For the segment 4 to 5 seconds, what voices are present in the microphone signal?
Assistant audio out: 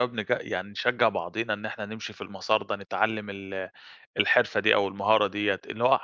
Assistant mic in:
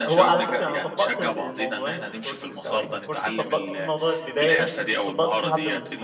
both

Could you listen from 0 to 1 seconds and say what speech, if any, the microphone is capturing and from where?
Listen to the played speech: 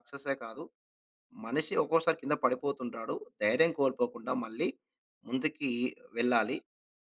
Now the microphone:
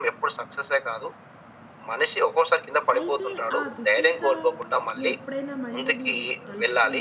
echo only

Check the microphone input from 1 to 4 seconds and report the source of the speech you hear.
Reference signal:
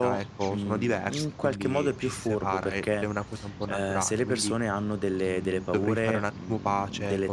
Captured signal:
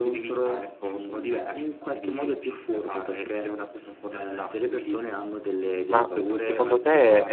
echo only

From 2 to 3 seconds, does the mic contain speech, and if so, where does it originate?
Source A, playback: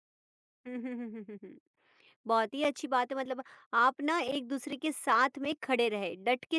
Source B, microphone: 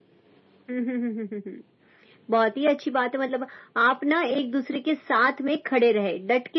echo only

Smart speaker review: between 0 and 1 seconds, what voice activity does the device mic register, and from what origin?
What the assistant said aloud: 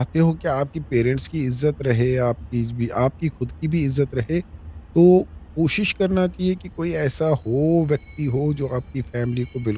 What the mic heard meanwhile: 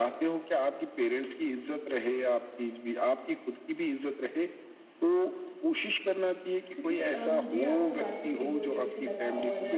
echo only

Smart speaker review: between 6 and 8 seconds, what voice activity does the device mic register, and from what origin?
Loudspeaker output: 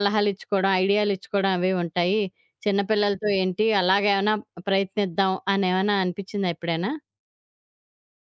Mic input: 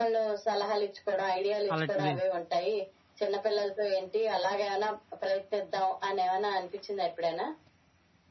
echo only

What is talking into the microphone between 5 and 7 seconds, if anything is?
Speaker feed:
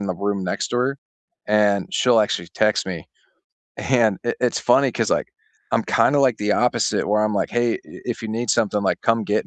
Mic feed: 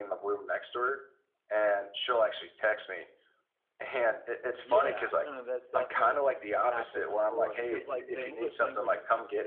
both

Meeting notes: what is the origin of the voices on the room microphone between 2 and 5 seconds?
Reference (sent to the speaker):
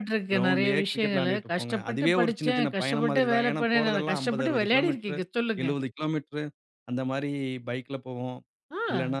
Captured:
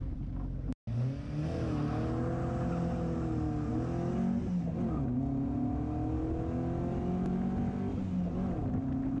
neither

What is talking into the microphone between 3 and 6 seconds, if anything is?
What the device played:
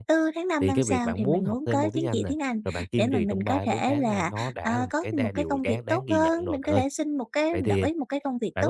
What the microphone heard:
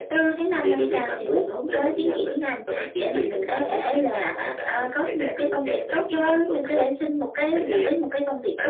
echo only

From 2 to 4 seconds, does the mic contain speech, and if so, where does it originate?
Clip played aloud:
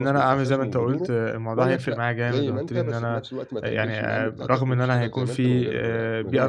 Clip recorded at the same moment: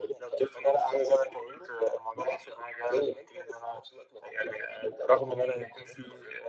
echo only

